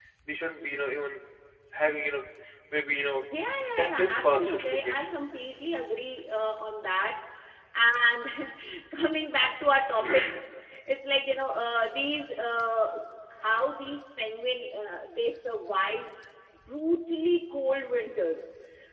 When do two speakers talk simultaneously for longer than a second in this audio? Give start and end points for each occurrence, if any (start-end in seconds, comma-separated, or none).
3.8-5.0